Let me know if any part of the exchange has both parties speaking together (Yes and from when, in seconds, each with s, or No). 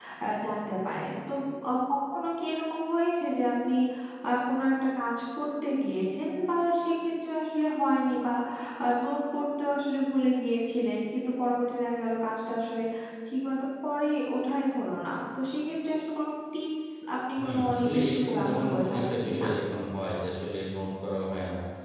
Yes, from 17.4 s